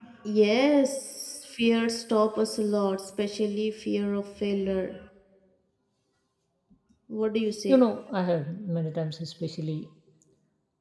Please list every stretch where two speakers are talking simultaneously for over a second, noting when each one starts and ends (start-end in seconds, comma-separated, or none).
none